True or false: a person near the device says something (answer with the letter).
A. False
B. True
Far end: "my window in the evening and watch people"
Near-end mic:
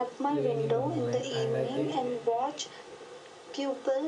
B